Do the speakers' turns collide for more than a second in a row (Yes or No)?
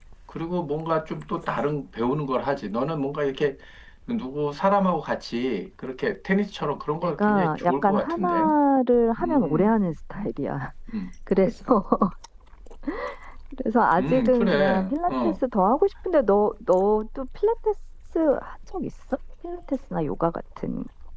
Yes